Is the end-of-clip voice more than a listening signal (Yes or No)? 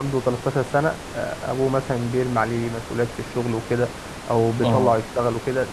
No